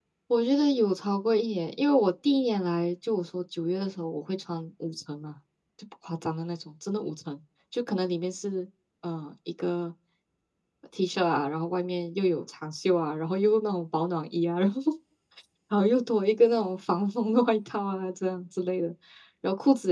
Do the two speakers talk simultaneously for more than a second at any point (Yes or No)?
No